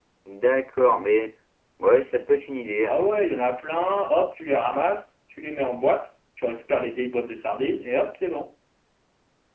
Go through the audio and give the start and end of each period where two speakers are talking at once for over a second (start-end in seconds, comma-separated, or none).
none